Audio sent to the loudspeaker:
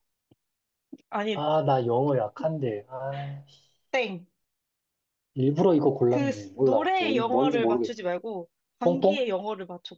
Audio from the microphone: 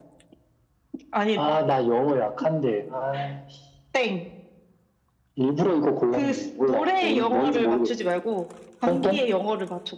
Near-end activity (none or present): none